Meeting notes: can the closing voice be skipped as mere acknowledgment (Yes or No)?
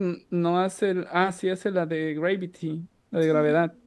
No